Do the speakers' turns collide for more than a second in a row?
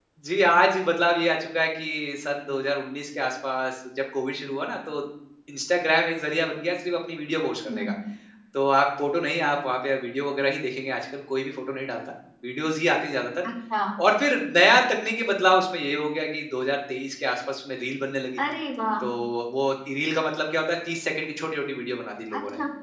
No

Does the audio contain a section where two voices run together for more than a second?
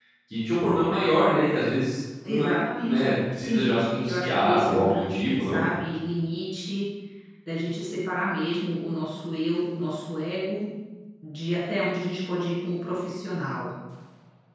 Yes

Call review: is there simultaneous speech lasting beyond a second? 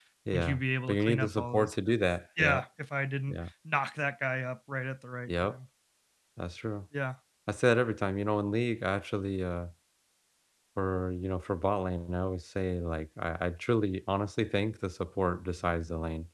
Yes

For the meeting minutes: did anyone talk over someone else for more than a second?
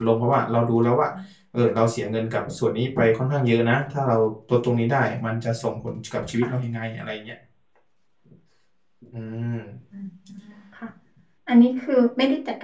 No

